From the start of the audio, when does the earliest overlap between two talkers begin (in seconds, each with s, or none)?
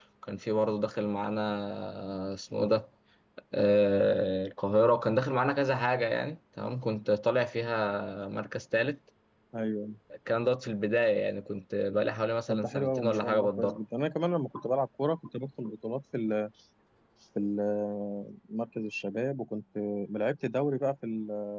12.5 s